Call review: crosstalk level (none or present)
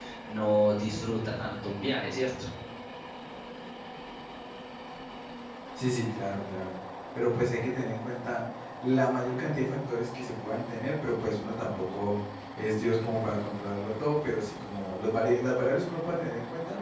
none